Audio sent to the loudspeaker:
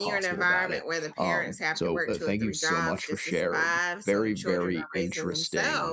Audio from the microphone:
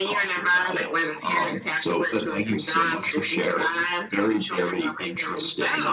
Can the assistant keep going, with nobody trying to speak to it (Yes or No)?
Yes